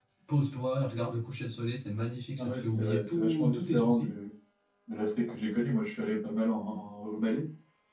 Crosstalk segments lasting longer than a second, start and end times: 2.4-4.1

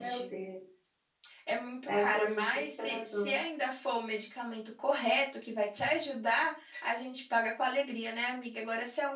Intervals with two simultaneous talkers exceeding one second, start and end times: 1.9-3.3

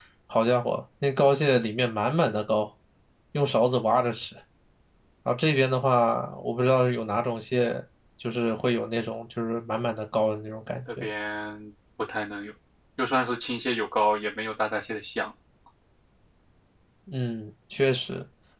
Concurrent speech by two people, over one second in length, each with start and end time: none

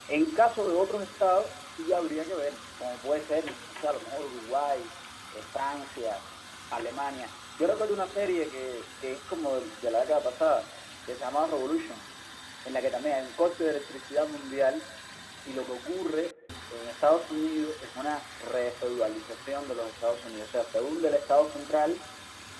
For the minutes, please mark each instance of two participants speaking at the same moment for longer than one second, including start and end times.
none

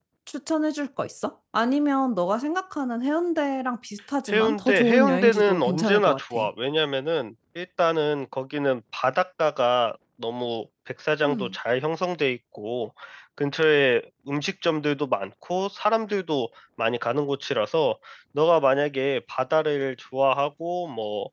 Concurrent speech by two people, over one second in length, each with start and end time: 4.3-6.4

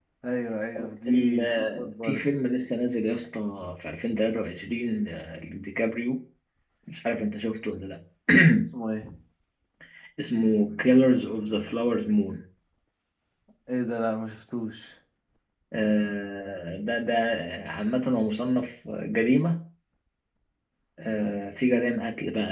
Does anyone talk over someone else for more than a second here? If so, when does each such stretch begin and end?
1.1-2.3

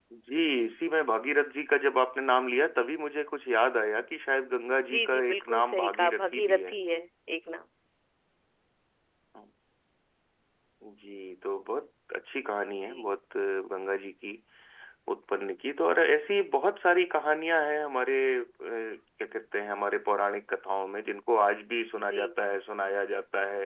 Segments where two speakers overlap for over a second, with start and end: 4.9-6.8

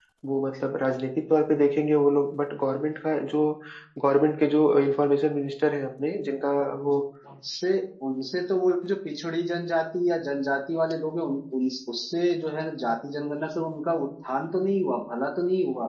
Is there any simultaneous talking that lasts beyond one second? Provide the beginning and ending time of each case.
none

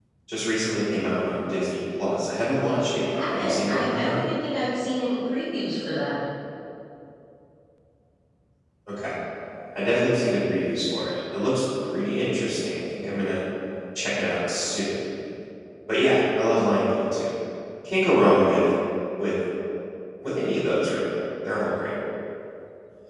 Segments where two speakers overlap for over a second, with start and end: 2.9-4.2

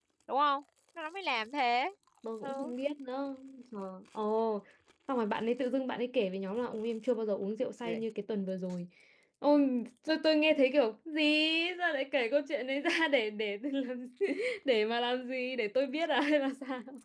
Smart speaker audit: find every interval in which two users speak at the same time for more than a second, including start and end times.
none

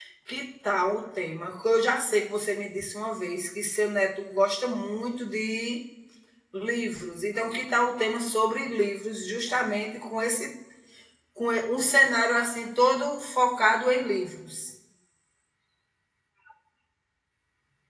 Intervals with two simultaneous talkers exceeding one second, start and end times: none

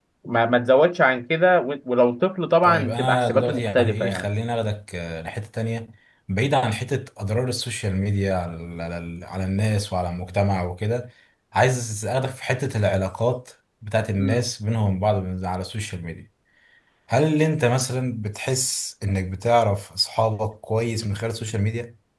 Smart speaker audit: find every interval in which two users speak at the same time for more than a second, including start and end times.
2.6-4.3

